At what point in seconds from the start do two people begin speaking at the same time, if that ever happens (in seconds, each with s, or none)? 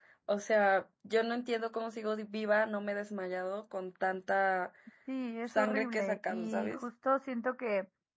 5.5 s